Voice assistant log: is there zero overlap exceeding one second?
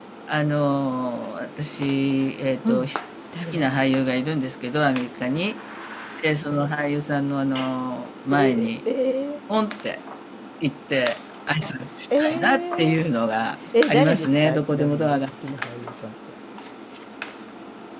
No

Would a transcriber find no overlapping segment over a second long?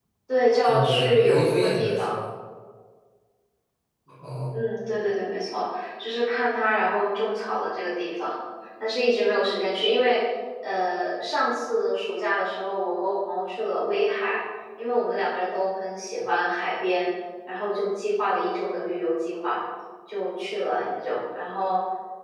No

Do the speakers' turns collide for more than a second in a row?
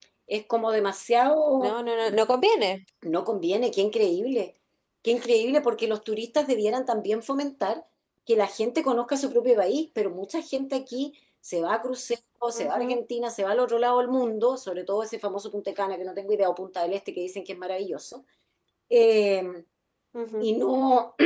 No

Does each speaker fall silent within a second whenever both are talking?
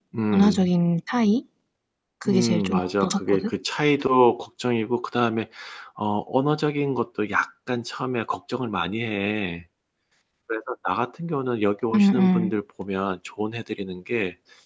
No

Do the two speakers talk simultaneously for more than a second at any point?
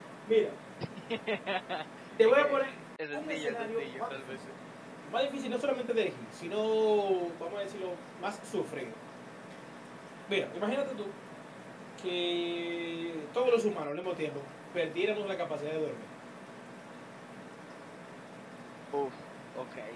Yes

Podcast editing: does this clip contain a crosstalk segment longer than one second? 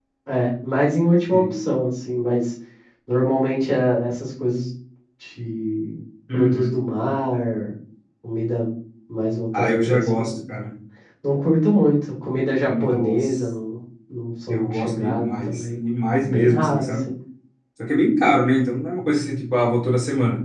Yes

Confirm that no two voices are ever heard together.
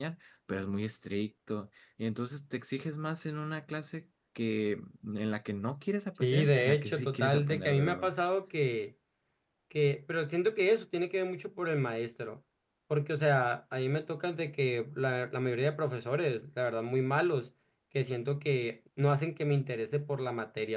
No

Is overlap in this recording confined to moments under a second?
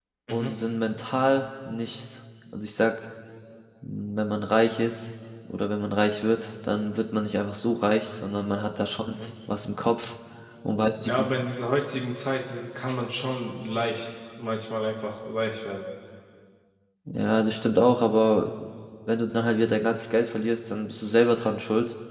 Yes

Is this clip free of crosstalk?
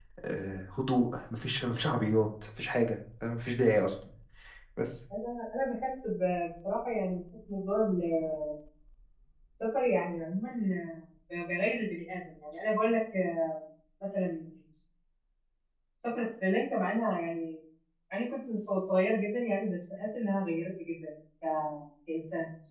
Yes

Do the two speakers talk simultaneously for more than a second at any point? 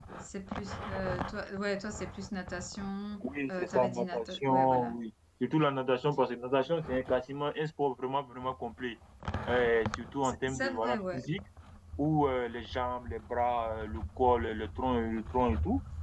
Yes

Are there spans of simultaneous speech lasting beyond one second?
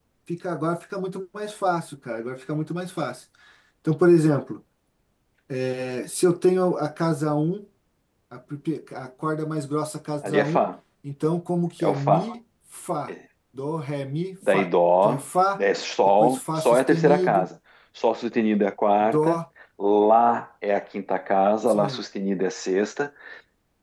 Yes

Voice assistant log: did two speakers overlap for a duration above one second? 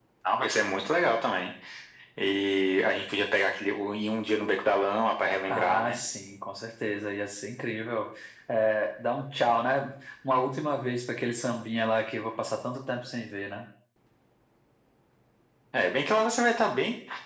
No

